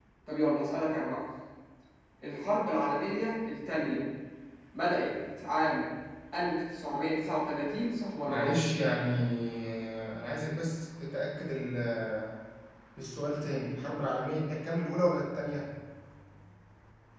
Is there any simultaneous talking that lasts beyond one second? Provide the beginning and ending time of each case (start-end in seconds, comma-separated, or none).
none